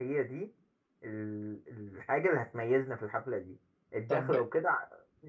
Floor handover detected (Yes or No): No